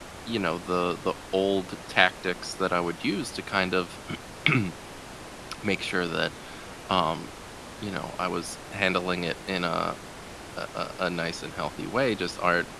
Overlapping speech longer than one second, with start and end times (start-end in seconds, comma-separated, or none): none